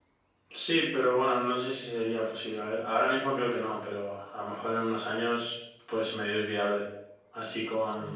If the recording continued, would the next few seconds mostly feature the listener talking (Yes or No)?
No